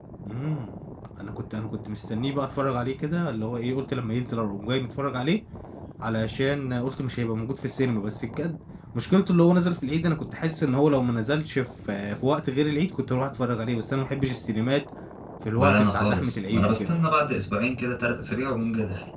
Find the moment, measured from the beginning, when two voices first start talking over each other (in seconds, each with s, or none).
15.5 s